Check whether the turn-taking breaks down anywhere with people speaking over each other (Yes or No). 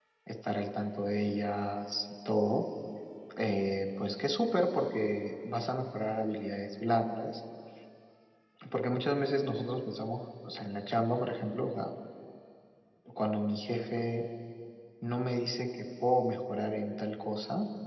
No